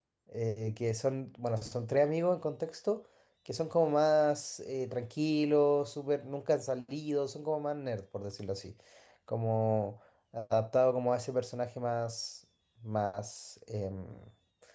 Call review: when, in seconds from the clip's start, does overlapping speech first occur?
none

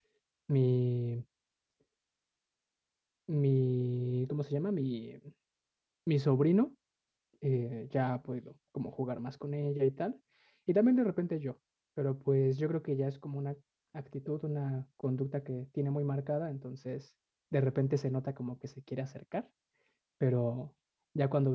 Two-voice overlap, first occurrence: none

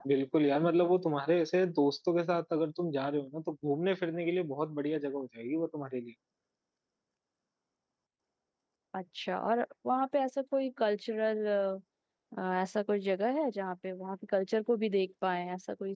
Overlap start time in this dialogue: none

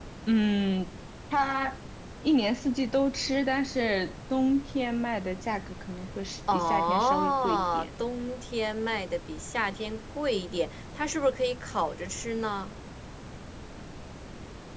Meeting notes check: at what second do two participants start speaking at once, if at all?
6 s

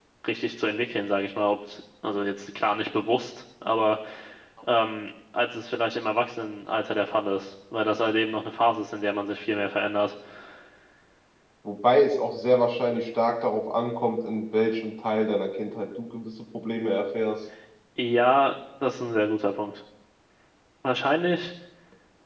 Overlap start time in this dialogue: none

